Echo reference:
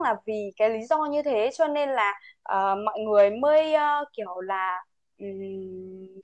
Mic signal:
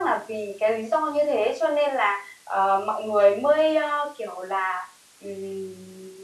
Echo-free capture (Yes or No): No